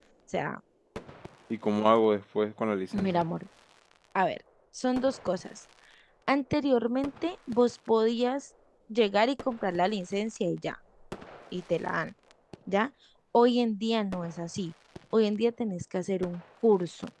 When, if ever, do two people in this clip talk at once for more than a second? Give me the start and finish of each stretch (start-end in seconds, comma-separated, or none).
none